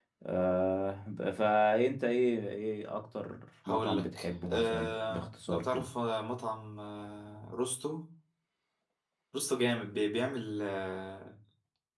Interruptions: present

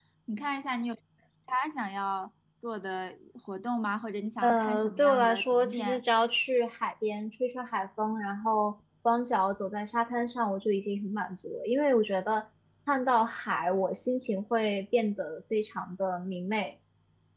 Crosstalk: present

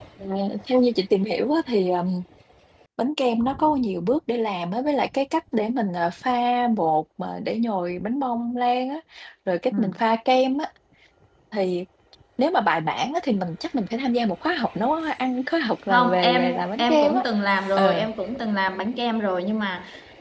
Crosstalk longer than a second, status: present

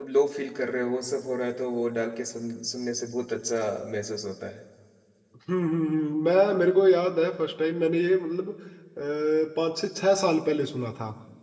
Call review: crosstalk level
none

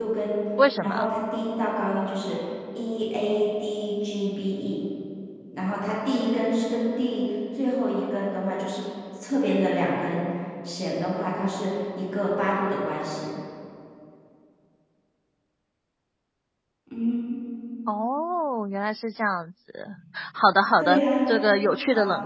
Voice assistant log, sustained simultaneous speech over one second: none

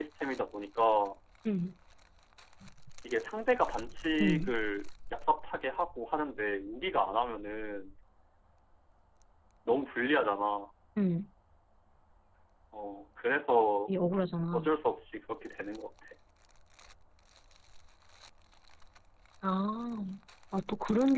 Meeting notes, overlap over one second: none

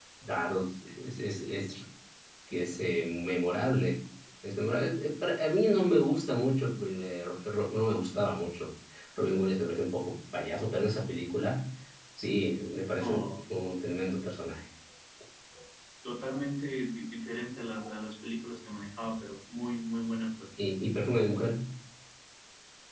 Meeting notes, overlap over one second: none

